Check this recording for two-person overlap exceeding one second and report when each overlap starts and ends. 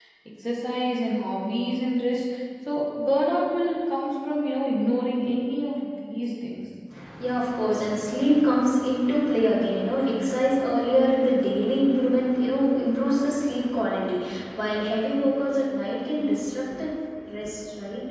none

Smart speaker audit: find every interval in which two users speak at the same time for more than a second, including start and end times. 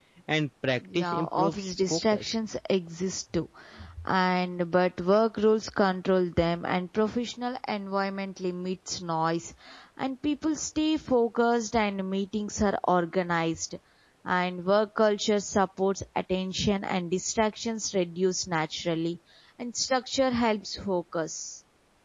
0.9-2.2

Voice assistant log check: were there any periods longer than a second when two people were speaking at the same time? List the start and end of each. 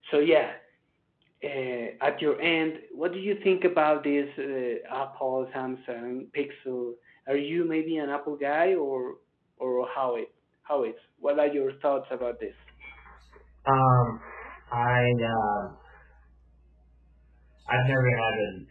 none

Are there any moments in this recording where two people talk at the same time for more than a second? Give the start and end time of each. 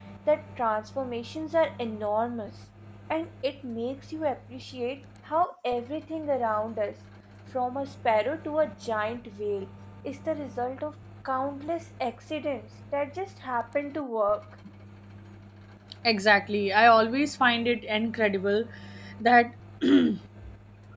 none

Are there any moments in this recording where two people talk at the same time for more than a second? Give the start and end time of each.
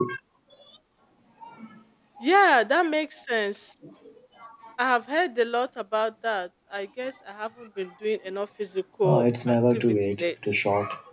9.0-10.6

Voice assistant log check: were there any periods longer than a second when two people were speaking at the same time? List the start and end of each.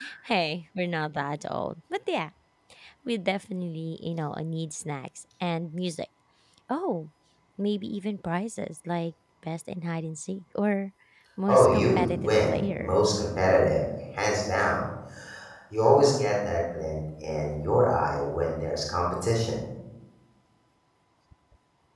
11.5-13.0

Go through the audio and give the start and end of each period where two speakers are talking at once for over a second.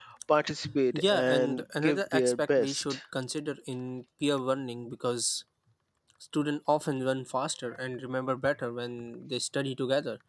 0.9-3.0

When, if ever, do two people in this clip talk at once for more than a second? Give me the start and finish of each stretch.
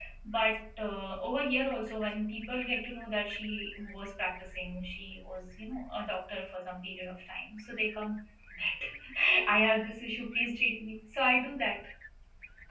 none

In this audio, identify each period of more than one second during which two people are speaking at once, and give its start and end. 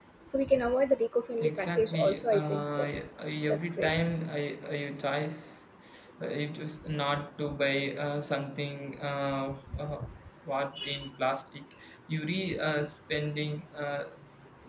1.4-2.9

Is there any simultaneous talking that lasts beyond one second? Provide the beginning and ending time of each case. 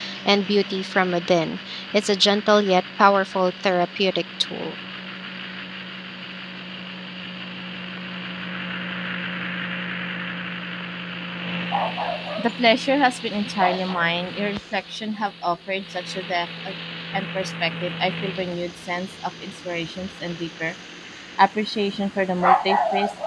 none

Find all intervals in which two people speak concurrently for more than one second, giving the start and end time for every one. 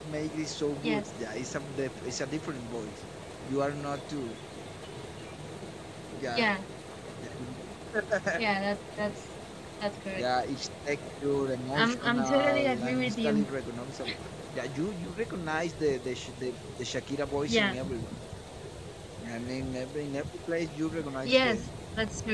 11.7-13.4

